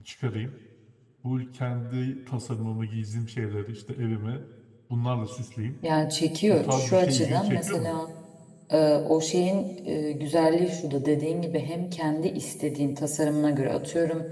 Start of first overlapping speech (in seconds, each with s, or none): 6.5 s